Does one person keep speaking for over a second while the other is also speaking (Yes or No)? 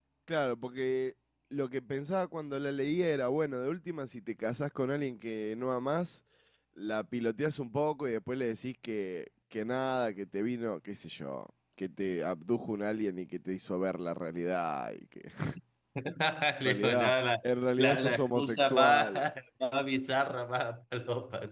Yes